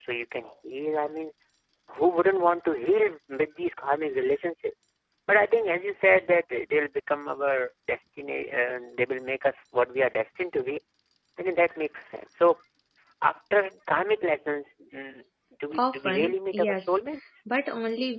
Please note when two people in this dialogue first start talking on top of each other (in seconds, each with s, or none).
15.8 s